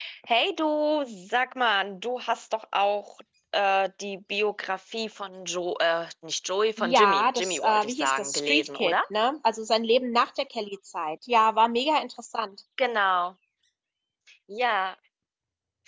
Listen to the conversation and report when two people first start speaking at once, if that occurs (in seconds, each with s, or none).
6.8 s